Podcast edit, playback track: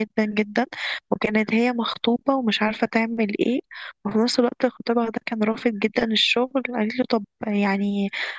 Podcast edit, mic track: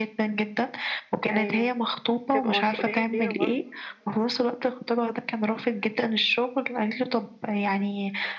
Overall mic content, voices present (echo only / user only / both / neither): both